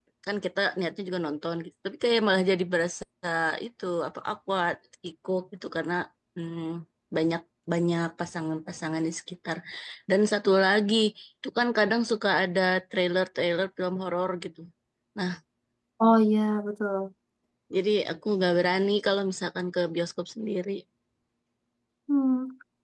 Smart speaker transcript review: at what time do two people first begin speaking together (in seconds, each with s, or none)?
none